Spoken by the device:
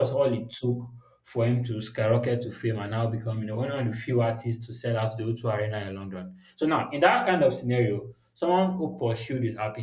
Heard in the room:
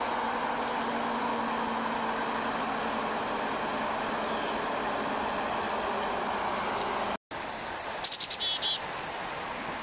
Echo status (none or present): none